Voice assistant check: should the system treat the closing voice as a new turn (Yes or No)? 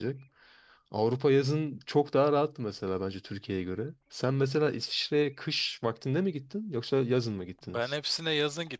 Yes